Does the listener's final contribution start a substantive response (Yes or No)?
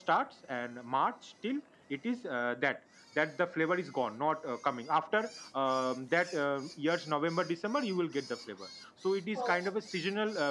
No